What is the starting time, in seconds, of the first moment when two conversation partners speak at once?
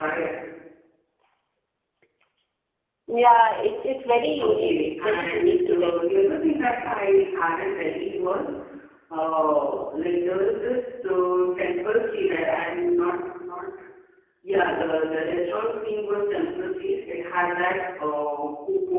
4 s

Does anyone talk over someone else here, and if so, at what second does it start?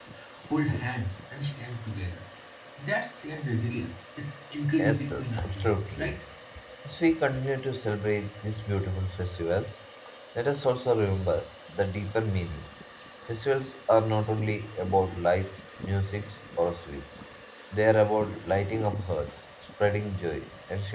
5 s

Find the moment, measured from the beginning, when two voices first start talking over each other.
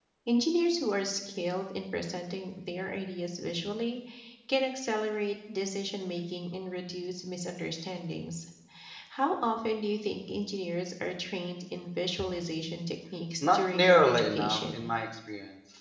13 s

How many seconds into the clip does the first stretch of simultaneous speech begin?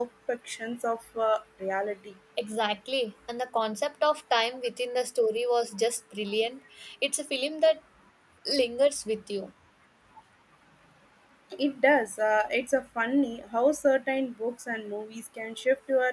none

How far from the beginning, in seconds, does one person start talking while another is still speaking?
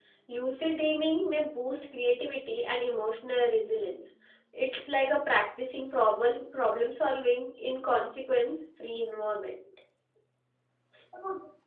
none

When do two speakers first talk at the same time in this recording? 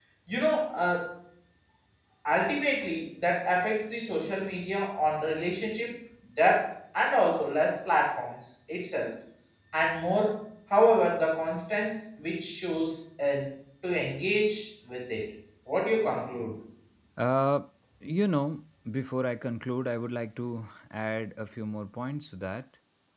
none

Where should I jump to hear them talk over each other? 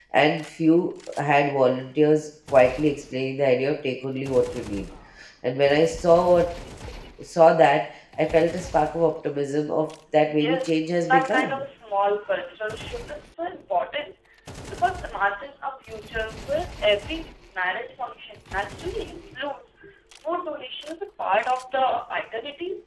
10 s

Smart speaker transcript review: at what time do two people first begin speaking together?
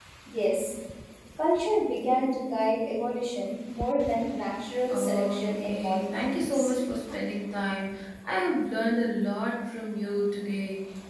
5 s

